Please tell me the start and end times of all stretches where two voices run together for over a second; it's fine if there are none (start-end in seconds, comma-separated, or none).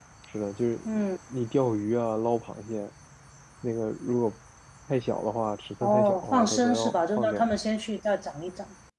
5.8-7.5